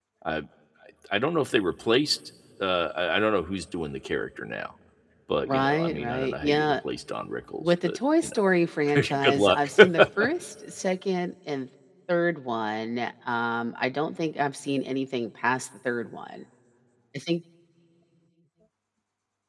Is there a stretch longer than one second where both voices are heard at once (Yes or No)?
Yes